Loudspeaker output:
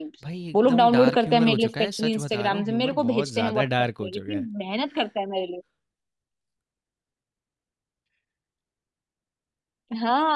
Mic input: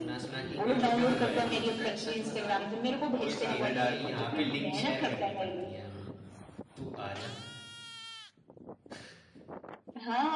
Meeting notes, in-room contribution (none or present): present